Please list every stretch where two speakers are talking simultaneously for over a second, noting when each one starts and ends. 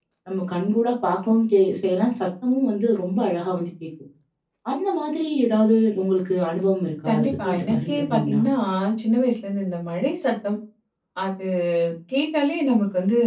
7.1-8.4

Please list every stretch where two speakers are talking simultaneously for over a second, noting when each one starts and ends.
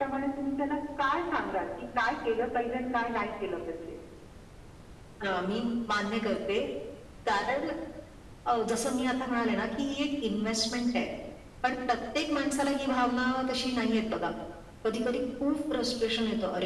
none

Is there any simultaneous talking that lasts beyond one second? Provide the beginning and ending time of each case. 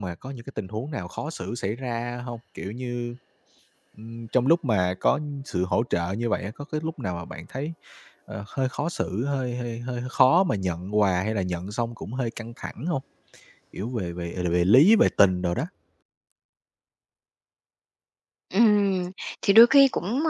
none

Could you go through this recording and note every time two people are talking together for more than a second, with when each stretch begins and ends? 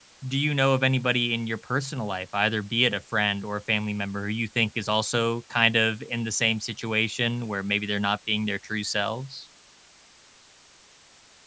none

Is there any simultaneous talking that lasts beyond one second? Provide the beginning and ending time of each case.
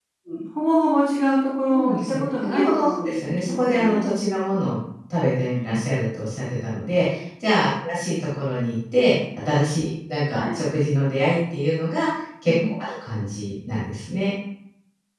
1.7-4.1

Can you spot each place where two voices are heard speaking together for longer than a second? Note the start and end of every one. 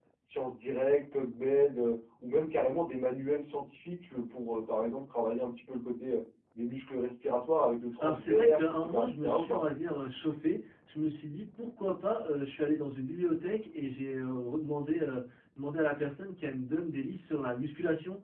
8.0-9.6

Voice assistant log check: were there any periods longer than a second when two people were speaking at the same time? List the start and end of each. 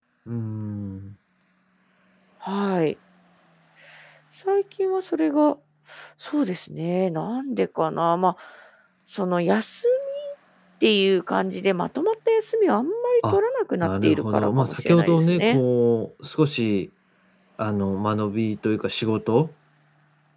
13.8-15.6

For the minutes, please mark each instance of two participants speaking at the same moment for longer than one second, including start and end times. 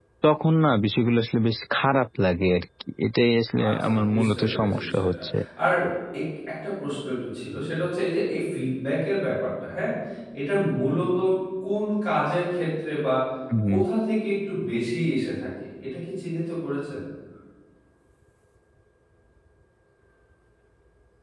3.7-5.2

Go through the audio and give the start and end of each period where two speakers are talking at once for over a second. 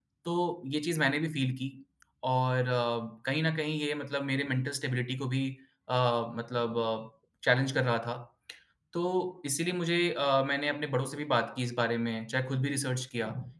none

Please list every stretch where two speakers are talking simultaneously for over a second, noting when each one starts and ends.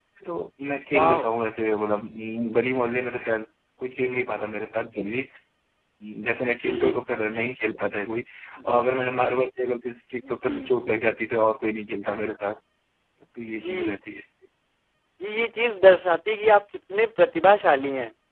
none

